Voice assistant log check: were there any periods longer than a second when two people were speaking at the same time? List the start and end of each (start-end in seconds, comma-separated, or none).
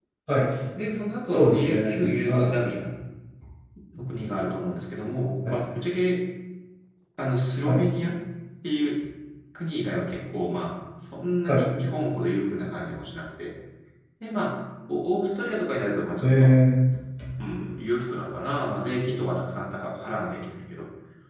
1.3-2.5